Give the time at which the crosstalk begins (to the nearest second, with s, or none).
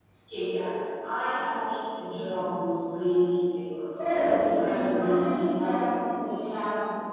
4 s